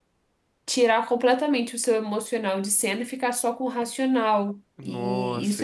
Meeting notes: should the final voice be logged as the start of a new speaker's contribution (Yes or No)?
Yes